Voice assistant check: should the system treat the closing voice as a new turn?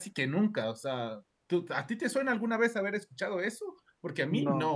No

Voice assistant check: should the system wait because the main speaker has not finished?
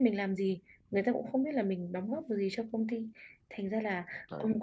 Yes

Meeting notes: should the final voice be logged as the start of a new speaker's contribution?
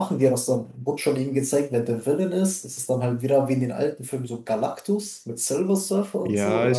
Yes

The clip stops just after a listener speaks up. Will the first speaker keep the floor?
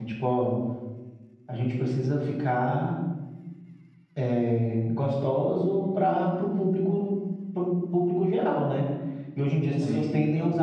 Yes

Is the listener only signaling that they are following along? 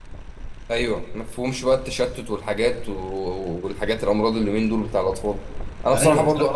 Yes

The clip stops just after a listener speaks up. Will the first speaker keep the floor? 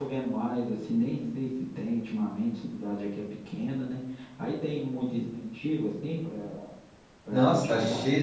No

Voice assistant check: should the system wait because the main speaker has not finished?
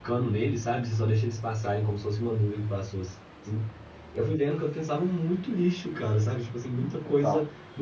Yes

